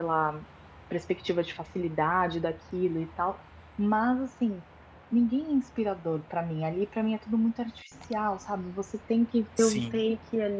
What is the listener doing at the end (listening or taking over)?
listening